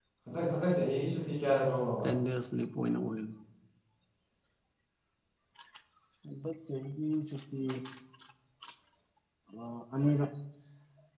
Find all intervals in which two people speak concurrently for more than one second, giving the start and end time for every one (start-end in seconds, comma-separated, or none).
none